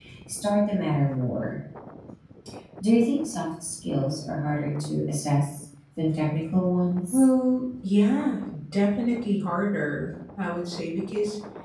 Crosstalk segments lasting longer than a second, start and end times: none

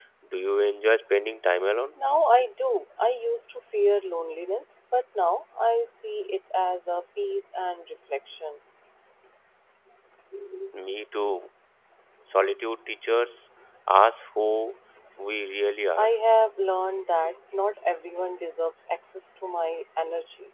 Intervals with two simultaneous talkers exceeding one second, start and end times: none

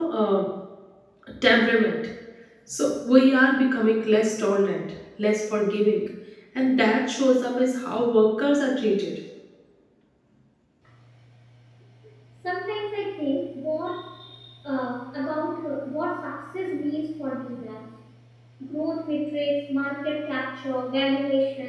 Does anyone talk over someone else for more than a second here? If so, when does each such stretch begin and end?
none

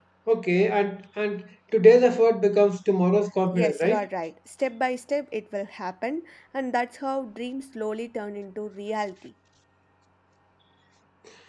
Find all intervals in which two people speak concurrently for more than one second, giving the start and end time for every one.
none

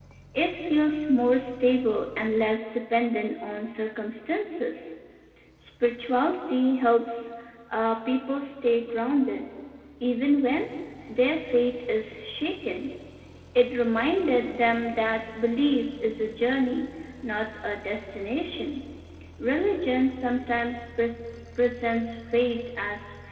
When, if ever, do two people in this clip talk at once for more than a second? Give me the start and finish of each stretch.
none

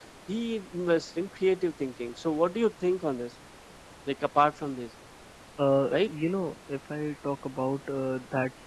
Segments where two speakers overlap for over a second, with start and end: none

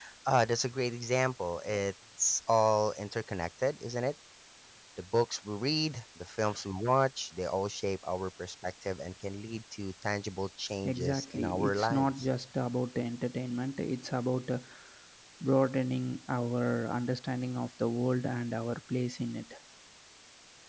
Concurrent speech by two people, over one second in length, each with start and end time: 10.8-12.3

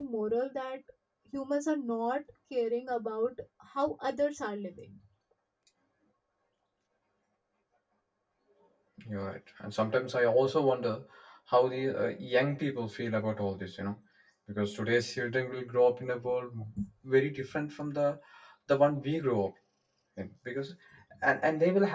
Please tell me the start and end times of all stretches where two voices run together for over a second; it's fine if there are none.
none

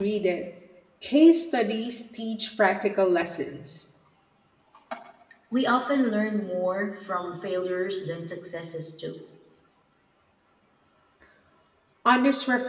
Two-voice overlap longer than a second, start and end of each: none

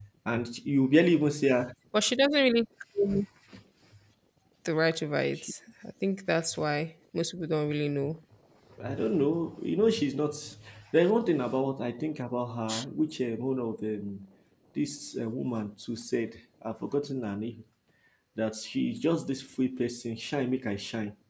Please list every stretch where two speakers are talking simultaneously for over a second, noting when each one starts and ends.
none

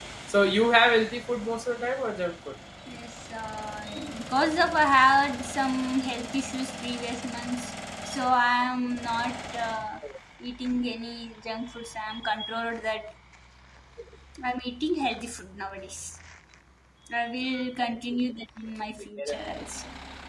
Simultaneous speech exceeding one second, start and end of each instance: none

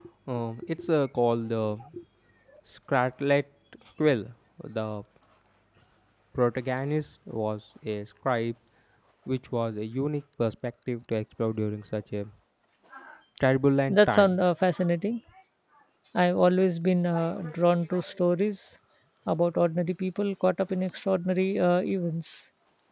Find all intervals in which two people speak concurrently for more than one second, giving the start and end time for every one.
none

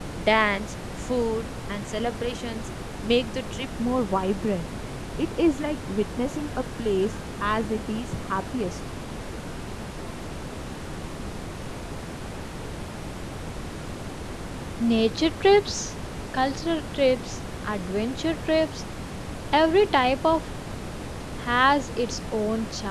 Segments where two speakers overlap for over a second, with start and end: none

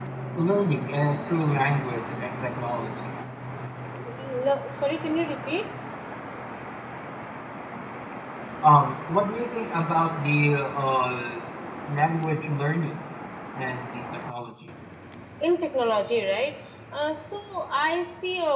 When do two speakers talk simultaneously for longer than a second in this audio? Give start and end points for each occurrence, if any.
none

